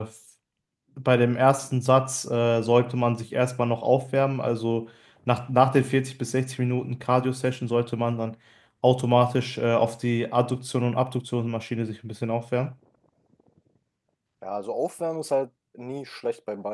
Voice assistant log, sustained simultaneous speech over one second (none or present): none